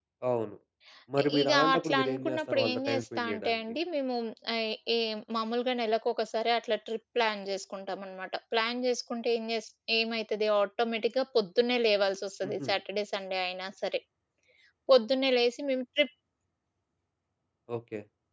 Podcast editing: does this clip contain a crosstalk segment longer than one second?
Yes, from 1.2 s

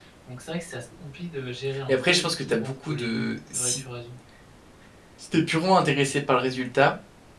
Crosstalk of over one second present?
Yes, from 1.9 s

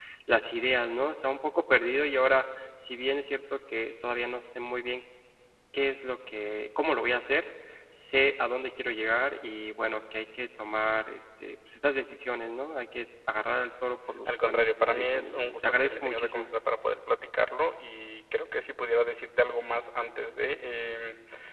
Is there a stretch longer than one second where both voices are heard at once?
Yes, from 14.2 s

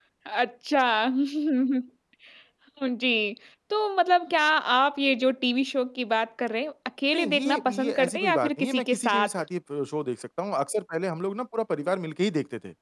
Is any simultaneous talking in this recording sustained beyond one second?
Yes, from 7.1 s

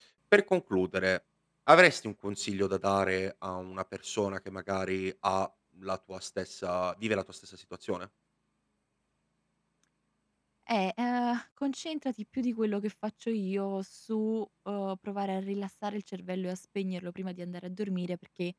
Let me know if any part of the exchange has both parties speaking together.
No

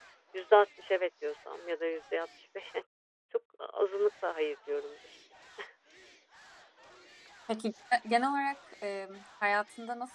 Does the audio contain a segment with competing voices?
No

